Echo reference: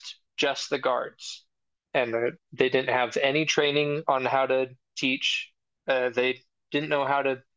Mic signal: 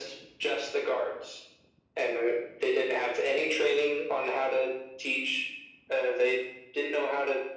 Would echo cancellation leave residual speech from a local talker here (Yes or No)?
No